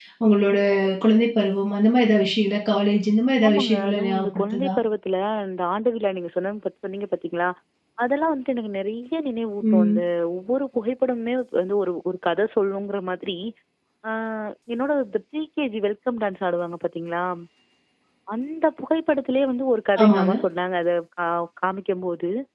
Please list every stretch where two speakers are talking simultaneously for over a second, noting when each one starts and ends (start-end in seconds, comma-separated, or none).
3.5-4.7